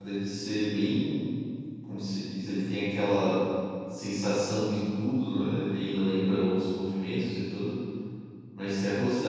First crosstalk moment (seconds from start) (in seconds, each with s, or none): none